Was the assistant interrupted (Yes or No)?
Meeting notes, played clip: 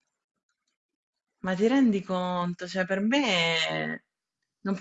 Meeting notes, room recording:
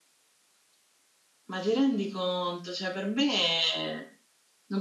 No